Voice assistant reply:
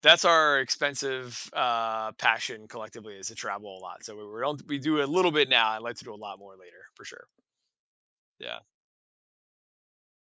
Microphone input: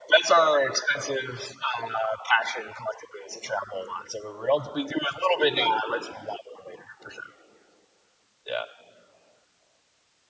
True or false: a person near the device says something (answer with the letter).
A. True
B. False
B